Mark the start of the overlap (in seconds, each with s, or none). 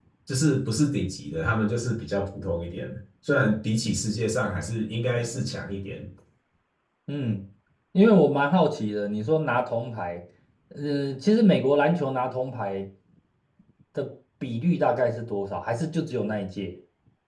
none